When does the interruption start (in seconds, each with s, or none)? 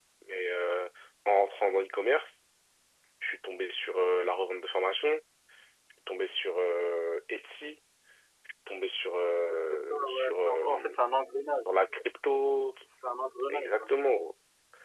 9.7 s